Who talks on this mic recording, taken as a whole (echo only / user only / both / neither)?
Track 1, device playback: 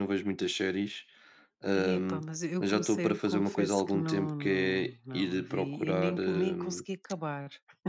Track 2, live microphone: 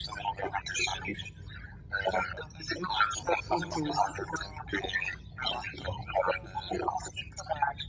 both